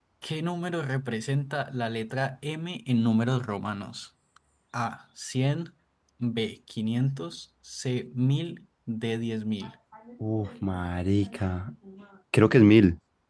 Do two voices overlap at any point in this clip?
No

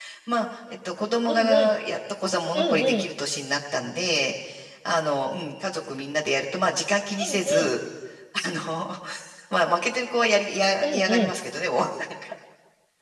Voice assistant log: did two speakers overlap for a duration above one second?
No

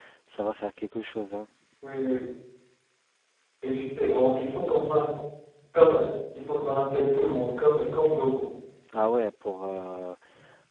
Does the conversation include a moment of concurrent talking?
No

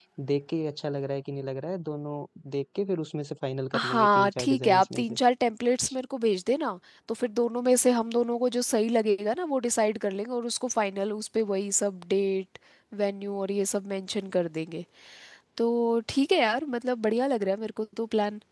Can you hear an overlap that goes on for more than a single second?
Yes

